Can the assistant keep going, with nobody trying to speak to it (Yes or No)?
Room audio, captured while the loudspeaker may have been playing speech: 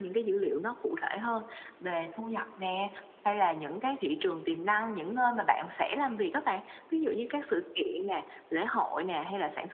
Yes